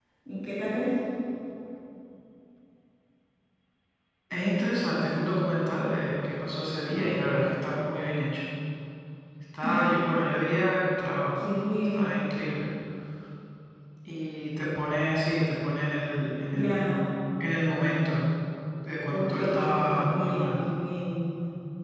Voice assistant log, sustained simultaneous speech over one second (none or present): present